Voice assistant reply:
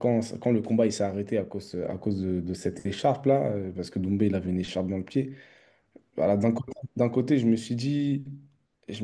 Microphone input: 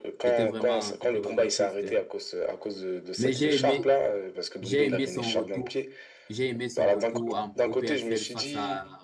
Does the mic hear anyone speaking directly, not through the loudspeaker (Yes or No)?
Yes